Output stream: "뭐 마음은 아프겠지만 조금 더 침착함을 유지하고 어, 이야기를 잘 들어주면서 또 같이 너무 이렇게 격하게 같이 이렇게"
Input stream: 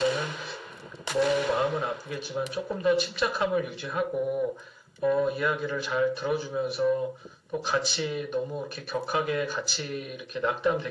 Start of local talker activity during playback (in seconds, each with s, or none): none